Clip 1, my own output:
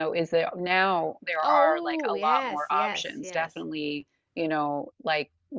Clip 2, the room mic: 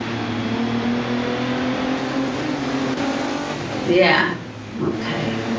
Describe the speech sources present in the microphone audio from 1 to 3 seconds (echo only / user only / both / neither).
neither